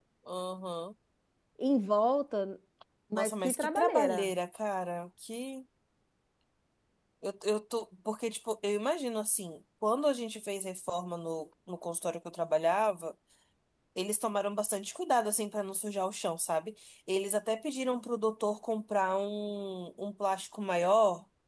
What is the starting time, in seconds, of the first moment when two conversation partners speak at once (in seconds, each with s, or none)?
3.1 s